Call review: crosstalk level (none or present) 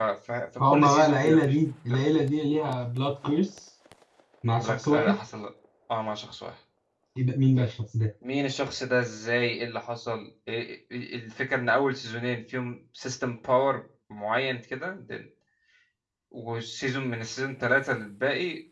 present